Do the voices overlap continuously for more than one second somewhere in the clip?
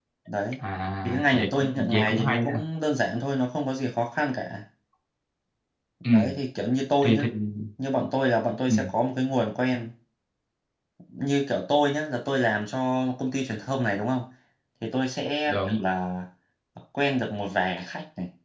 Yes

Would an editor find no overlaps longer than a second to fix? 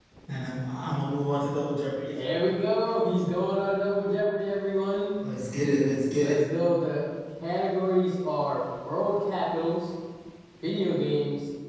Yes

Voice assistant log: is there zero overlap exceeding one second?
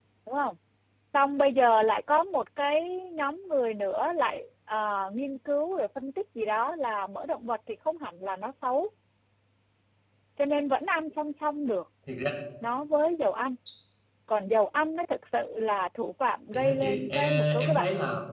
No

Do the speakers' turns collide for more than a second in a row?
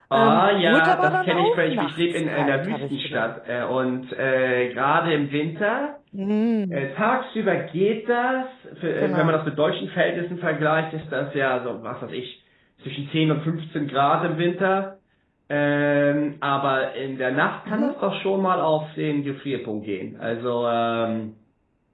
Yes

